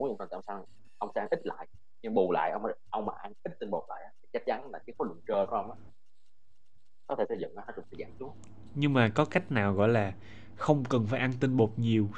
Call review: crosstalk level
none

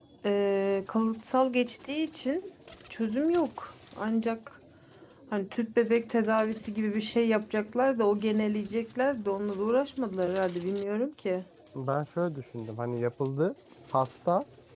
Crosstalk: none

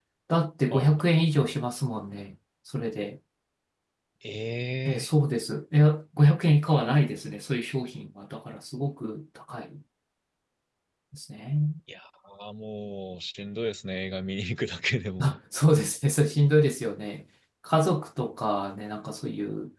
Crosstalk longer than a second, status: none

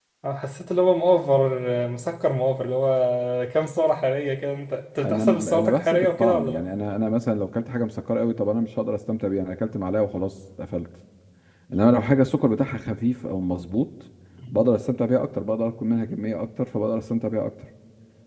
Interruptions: present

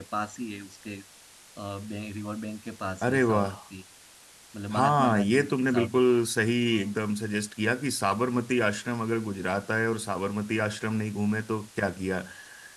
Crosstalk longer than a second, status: present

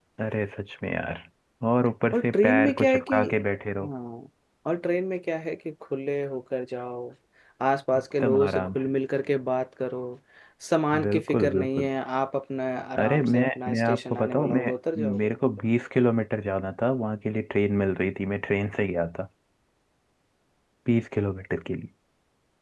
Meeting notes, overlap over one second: present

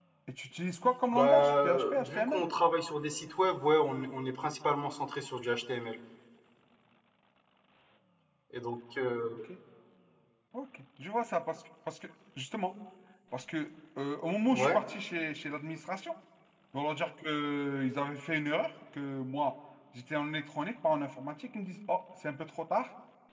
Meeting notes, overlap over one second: present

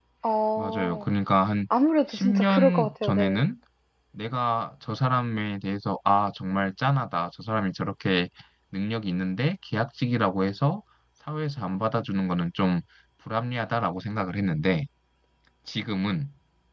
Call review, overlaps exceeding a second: present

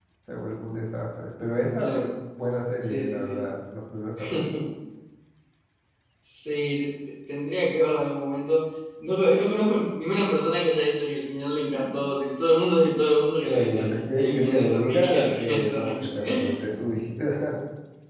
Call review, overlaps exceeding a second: present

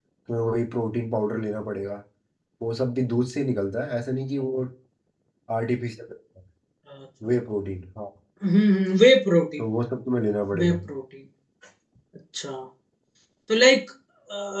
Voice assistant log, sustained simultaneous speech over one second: none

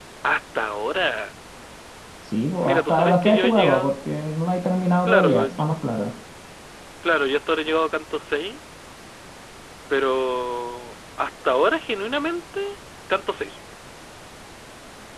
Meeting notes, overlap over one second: present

